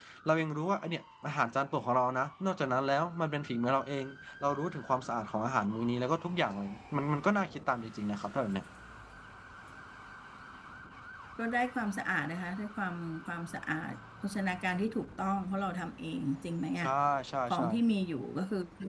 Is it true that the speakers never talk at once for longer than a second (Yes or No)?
Yes